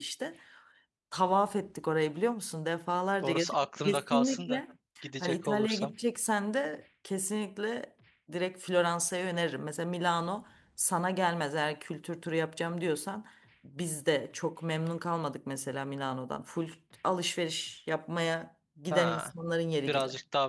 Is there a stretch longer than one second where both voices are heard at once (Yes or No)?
Yes